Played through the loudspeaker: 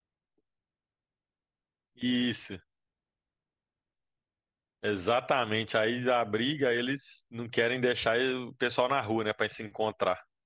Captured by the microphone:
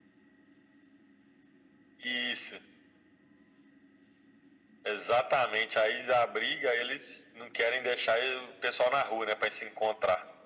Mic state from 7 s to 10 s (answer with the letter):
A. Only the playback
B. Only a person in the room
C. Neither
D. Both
A